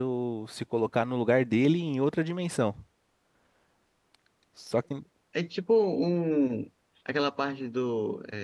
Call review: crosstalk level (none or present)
none